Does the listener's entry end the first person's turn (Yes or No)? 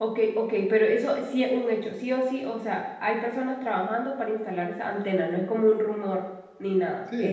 Yes